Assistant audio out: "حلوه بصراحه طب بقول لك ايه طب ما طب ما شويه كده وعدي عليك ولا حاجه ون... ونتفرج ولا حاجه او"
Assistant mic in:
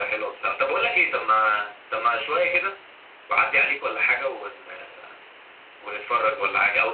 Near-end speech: none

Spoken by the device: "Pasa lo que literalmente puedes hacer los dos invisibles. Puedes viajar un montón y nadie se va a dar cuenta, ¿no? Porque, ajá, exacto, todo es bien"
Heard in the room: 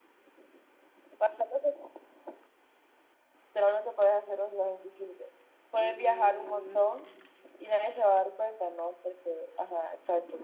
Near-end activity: present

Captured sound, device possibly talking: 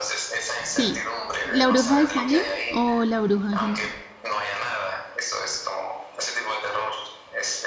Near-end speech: present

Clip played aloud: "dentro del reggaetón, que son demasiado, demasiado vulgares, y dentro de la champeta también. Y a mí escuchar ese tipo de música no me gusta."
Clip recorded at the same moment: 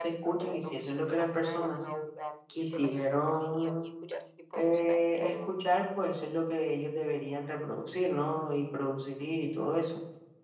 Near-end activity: present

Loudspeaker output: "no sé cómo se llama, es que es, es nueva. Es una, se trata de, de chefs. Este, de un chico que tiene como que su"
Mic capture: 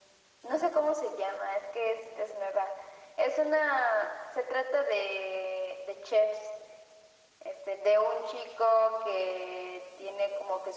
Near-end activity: none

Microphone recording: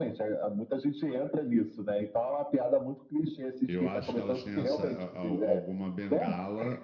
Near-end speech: present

